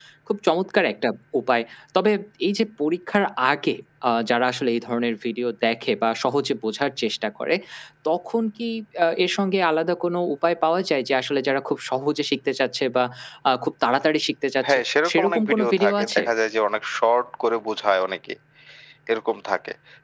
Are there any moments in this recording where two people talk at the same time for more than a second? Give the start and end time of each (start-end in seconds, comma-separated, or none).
14.6-16.2